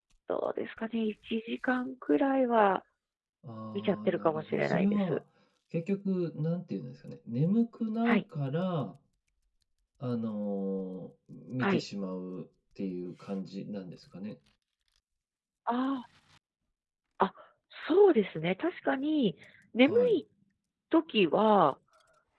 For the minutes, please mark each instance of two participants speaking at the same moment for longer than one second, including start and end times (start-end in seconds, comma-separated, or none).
3.8-5.2